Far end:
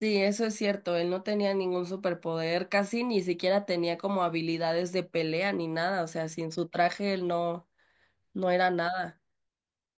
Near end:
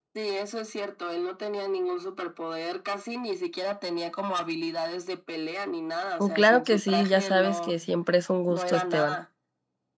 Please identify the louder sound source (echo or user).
user